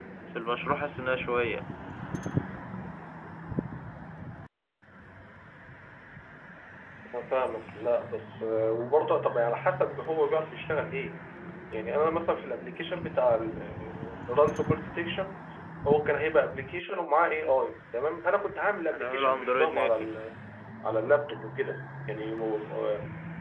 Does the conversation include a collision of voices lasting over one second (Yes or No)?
Yes